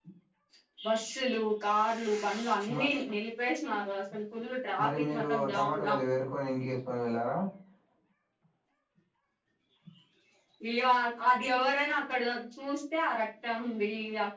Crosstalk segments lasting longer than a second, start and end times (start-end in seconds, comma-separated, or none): 4.8-6.0